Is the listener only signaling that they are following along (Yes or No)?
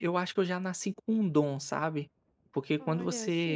Yes